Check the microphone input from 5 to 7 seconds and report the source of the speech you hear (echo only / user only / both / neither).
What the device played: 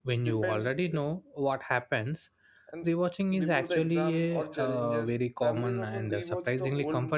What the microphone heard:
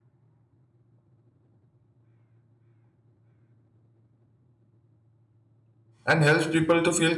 user only